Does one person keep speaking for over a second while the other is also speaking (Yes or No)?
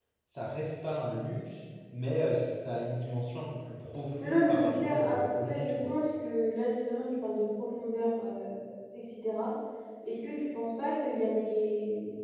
Yes